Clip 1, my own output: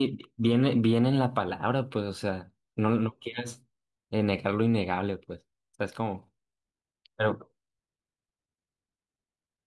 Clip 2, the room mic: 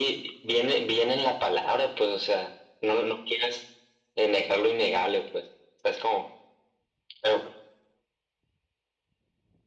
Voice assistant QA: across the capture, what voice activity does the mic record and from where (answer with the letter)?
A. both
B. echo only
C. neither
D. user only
B